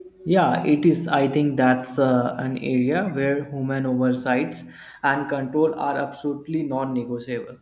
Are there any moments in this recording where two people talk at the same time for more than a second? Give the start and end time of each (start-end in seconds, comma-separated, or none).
none